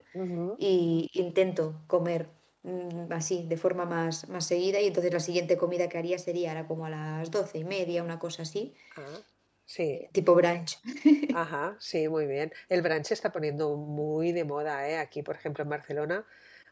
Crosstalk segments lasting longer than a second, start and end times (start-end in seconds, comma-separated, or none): none